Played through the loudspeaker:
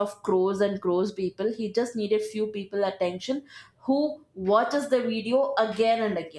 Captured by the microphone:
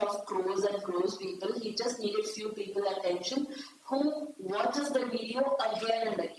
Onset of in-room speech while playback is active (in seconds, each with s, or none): none